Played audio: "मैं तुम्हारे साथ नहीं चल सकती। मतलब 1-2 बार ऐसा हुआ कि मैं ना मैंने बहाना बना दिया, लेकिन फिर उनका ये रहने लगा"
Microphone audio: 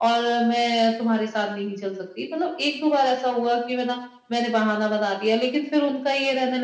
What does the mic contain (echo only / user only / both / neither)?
echo only